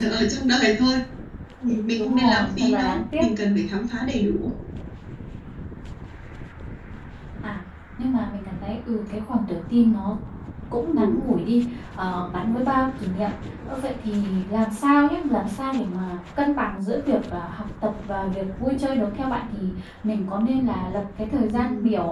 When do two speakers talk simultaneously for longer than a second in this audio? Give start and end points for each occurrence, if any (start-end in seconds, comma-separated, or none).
1.9-3.2